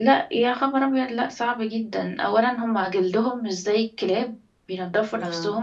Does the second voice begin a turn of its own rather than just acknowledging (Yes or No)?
No